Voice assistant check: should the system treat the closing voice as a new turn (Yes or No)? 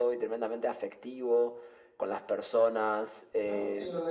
Yes